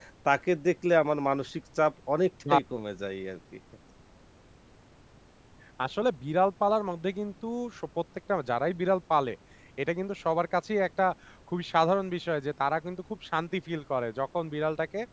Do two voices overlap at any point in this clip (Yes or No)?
No